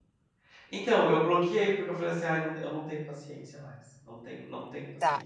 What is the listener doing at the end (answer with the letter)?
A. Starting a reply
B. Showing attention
A